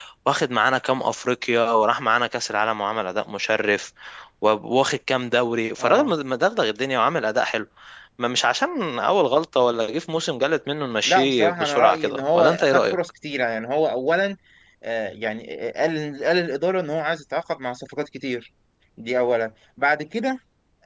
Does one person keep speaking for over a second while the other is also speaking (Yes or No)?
Yes